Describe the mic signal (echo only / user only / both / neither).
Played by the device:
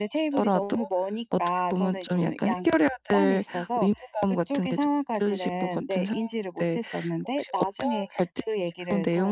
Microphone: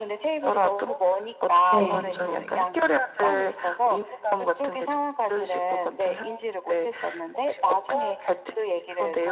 both